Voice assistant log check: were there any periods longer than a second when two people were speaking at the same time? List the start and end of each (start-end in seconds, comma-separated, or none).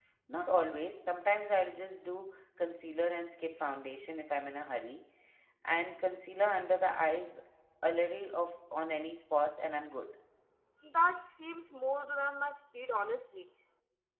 none